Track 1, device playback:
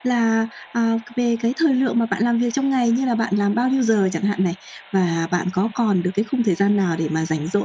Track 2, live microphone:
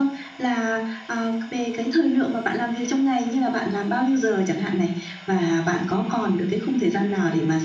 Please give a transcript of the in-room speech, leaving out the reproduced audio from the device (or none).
none